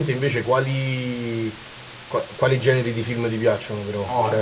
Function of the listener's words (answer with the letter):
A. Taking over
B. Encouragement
A